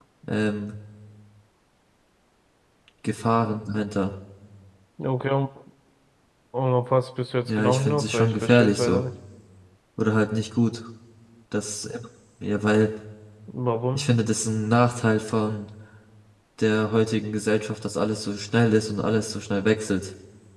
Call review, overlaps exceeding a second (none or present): present